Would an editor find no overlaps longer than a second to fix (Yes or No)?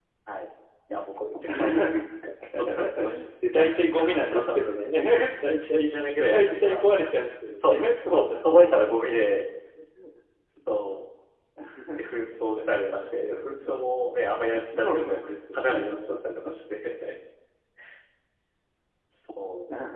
No